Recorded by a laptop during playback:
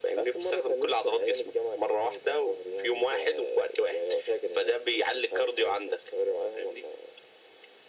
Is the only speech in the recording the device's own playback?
Yes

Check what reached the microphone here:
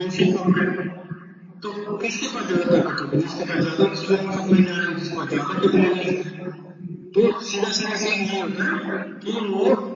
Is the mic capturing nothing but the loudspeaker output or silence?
Yes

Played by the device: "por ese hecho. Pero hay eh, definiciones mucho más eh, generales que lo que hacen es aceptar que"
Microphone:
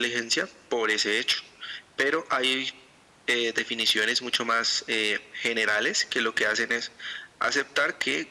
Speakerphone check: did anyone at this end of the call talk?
No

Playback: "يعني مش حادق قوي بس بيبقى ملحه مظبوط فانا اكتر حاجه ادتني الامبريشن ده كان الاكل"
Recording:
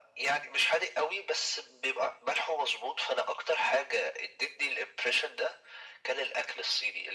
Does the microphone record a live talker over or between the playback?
No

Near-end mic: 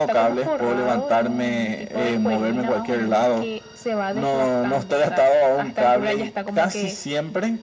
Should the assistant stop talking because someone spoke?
No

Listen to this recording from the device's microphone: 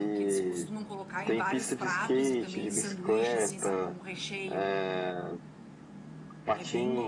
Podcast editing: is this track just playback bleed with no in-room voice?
No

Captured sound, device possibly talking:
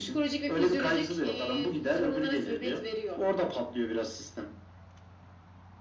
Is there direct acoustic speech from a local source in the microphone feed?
No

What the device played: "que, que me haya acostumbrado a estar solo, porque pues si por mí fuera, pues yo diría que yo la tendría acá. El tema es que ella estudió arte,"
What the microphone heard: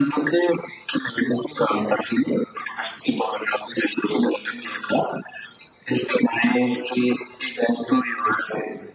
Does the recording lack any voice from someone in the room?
Yes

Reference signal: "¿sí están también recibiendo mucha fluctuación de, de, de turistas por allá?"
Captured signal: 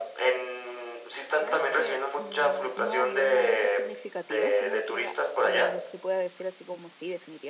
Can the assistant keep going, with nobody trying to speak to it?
No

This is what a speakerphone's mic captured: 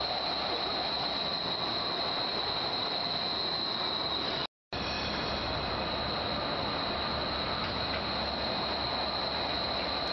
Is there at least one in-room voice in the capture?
No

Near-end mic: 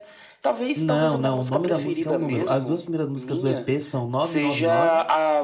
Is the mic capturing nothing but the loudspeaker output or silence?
No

